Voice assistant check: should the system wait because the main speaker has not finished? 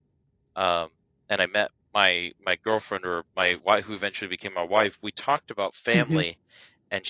Yes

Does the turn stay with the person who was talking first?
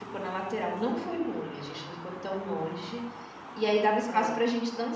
Yes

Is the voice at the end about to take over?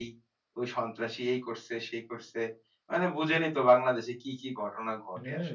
Yes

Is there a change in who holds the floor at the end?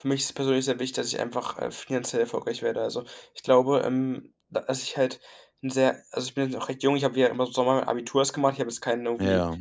No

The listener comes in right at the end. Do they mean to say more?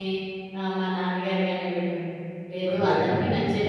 No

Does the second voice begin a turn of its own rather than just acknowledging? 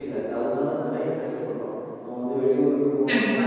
No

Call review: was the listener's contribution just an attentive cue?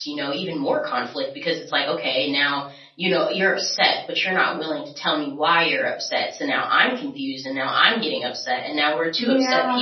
Yes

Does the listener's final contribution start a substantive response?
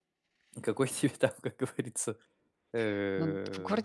Yes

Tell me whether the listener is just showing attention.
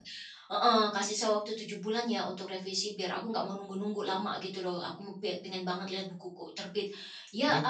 Yes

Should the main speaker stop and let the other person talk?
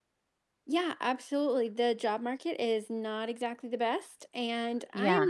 No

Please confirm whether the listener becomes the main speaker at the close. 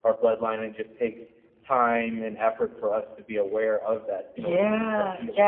Yes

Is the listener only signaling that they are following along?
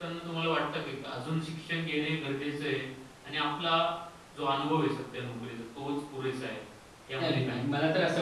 No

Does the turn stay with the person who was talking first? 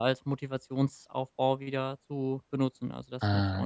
No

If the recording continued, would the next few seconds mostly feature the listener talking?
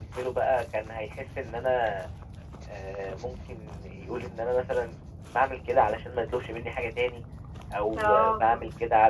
No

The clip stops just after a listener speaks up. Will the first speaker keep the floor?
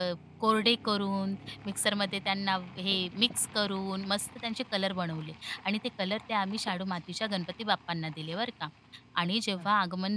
Yes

